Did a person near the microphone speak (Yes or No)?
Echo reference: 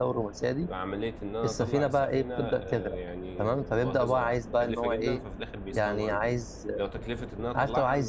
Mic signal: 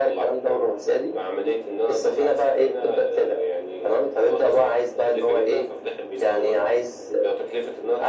No